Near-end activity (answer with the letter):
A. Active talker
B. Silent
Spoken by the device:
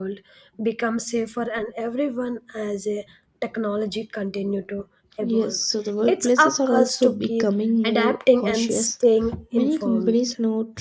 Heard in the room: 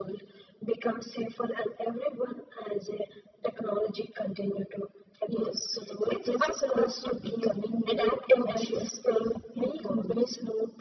B